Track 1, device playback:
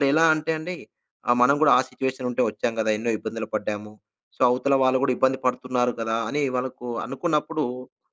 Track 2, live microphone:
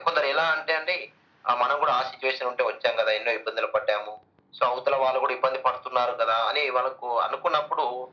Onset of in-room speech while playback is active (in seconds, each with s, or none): none